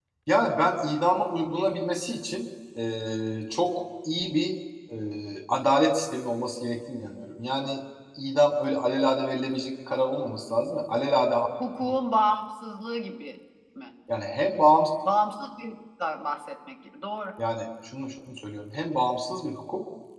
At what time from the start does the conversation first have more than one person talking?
none

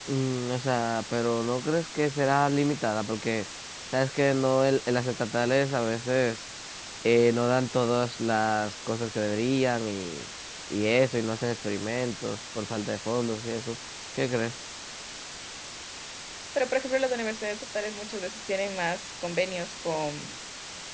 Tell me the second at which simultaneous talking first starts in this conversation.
none

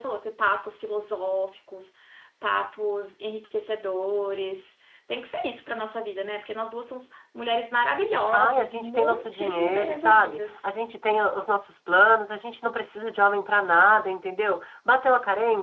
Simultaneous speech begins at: 8 s

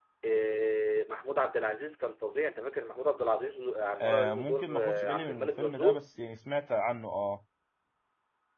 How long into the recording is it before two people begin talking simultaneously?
4 s

